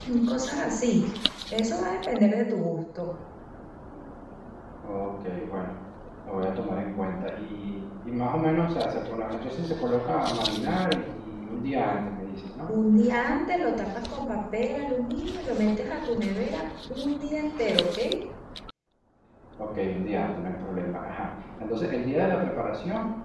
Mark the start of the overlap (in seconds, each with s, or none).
none